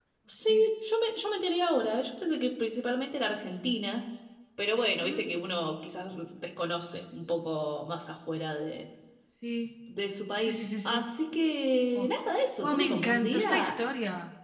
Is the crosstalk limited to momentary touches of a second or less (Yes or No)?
No